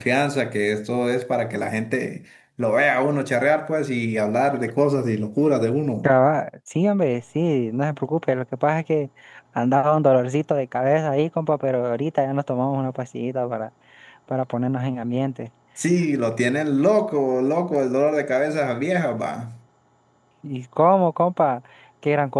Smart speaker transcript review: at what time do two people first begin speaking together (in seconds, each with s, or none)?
none